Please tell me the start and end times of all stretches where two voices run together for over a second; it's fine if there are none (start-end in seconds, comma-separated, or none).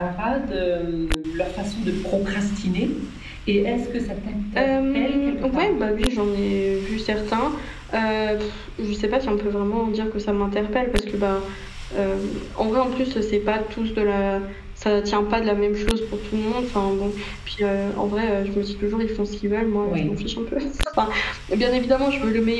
4.6-5.8